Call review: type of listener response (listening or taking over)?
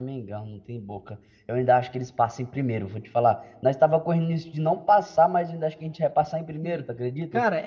taking over